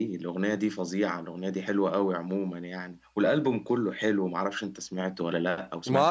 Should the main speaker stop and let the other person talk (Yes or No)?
Yes